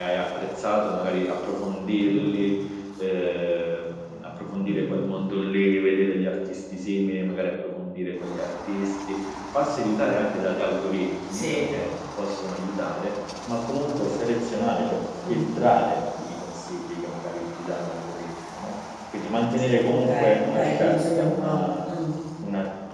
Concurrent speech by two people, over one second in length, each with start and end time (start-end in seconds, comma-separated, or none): 20.0-21.6